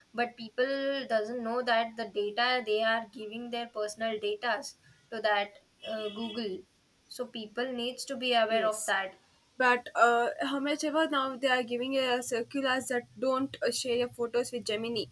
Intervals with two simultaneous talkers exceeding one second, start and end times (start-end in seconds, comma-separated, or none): none